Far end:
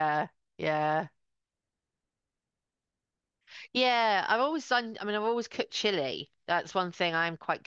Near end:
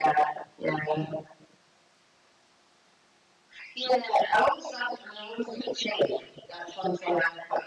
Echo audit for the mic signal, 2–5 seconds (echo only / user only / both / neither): echo only